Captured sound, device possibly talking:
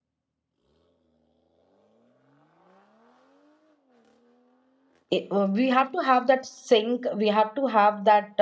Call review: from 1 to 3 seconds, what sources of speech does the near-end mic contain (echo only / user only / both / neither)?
neither